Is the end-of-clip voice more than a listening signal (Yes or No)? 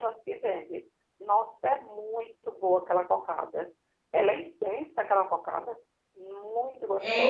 Yes